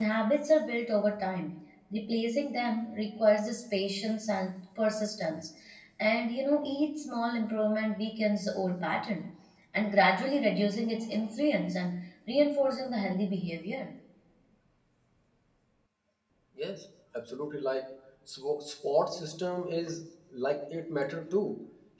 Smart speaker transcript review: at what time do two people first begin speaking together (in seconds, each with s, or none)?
none